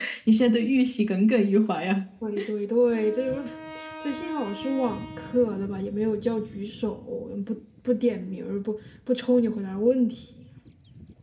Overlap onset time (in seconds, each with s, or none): none